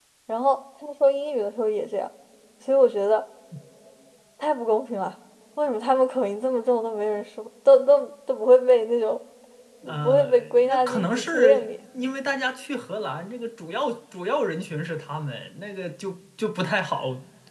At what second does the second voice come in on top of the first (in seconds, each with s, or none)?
10.0 s